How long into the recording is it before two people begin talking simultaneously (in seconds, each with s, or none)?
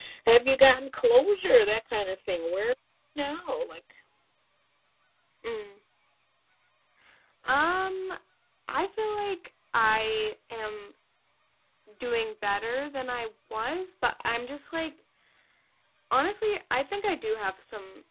none